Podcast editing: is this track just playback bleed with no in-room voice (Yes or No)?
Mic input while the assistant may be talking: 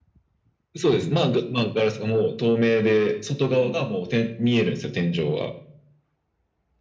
Yes